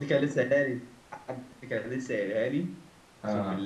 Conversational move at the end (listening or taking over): listening